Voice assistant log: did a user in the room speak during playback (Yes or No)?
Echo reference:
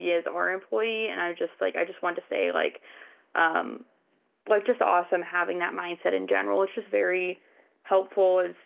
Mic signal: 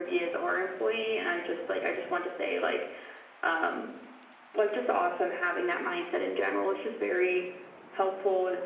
No